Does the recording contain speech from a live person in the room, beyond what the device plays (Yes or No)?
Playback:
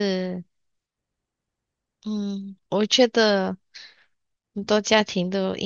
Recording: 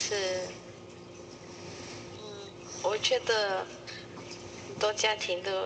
No